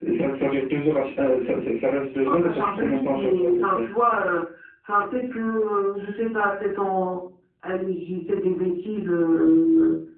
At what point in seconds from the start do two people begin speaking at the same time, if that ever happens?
2.2 s

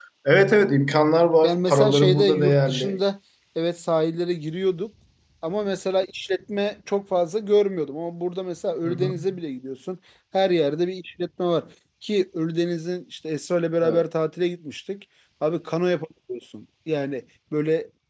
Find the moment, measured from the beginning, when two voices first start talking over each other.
1.4 s

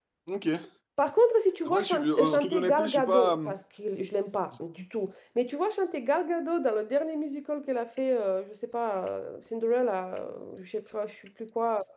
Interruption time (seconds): 1.6 s

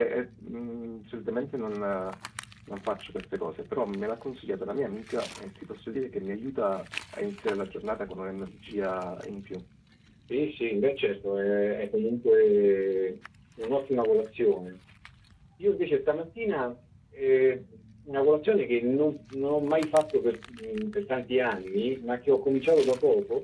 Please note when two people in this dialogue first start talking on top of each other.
none

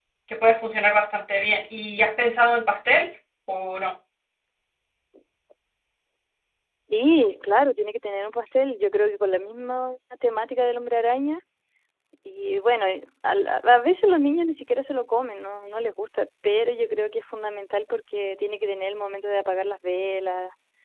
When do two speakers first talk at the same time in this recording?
none

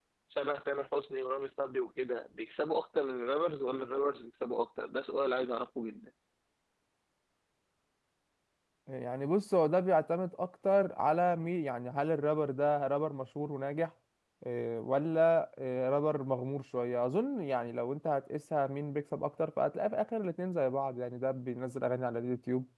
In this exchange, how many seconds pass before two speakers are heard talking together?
none

